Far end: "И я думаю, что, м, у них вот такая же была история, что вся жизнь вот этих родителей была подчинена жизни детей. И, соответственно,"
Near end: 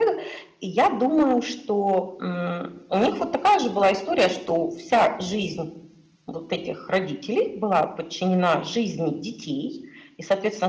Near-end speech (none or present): none